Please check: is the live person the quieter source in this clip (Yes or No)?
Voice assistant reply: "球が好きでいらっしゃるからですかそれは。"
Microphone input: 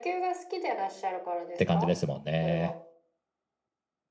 No